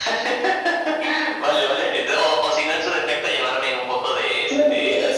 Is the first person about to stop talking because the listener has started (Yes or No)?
Yes